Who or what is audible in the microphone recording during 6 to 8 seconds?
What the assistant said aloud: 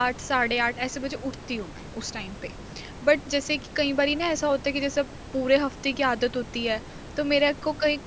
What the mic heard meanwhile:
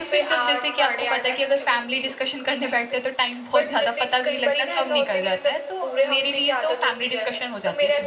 both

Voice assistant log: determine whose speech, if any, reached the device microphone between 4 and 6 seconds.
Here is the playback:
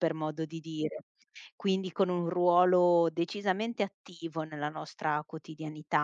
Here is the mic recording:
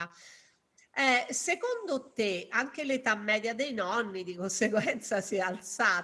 user only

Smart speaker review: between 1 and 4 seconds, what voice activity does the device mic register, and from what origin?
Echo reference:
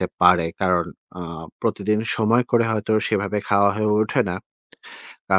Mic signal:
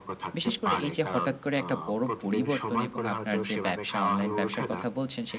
both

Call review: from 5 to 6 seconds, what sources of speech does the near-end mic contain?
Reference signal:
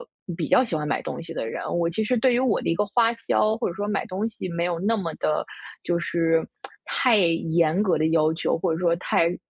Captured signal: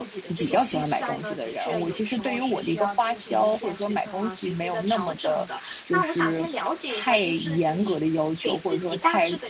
both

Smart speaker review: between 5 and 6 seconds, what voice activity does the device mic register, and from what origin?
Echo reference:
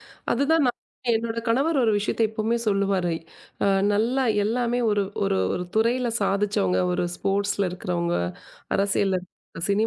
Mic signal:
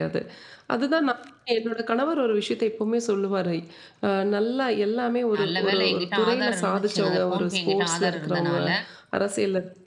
both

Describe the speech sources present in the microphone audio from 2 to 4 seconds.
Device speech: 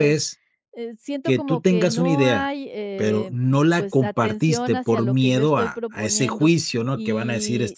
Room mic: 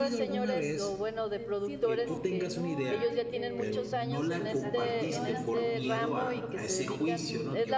both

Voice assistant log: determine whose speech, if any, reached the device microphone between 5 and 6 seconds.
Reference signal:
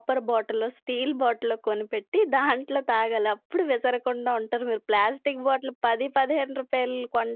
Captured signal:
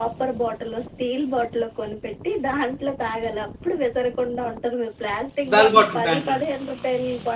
both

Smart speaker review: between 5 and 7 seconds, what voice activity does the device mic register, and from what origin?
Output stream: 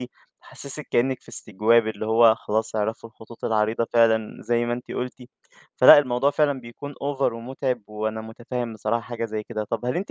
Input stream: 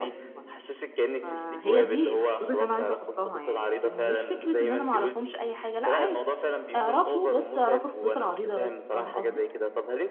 both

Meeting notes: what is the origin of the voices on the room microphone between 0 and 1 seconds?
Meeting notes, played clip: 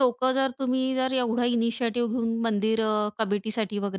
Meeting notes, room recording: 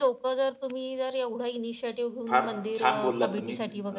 echo only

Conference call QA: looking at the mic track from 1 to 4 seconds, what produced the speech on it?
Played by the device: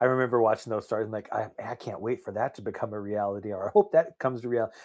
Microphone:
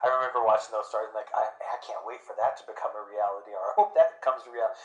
echo only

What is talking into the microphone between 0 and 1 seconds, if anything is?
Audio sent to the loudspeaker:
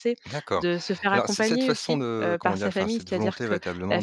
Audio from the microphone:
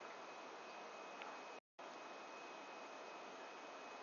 neither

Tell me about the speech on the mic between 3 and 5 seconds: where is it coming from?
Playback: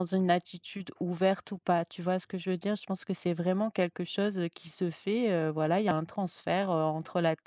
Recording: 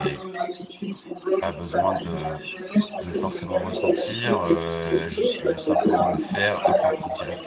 both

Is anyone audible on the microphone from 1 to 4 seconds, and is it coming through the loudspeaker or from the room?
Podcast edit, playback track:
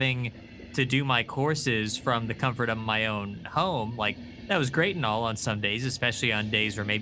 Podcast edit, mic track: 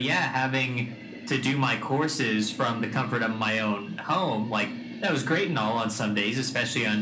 echo only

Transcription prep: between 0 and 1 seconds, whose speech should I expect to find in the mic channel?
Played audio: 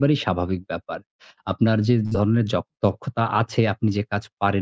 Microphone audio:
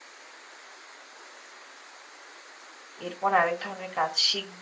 neither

